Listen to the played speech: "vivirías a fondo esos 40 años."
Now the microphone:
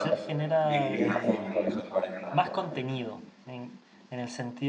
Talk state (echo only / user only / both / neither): both